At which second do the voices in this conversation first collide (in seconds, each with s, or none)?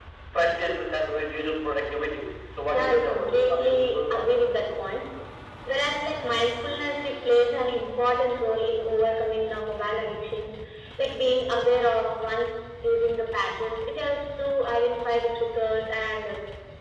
2.7 s